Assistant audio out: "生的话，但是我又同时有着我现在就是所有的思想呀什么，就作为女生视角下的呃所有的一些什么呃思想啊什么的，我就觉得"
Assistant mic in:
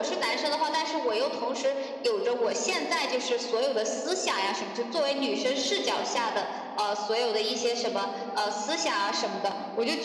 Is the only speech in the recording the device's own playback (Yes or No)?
Yes